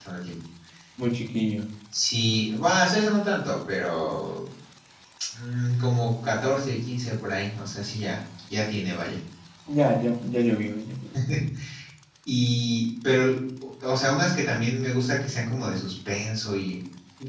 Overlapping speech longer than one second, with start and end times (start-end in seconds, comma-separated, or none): none